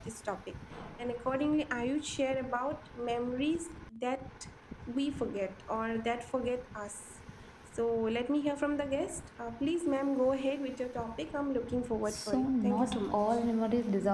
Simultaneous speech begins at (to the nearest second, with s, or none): 12 s